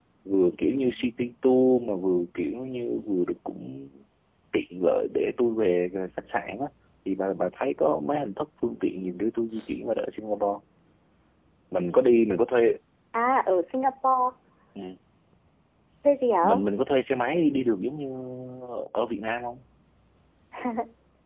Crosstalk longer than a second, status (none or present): none